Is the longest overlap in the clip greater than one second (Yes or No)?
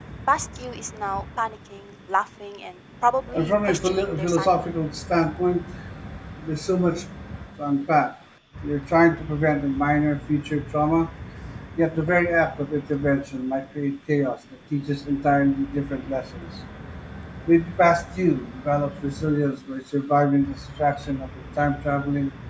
Yes